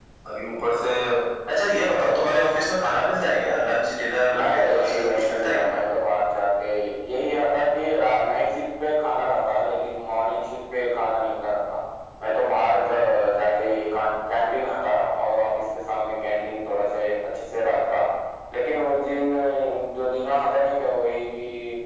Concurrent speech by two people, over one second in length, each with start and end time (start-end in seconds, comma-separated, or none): 4.3-5.7